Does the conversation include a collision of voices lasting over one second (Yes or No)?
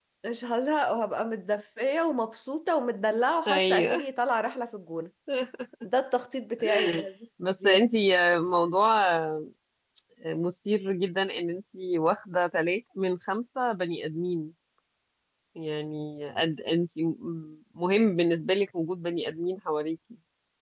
No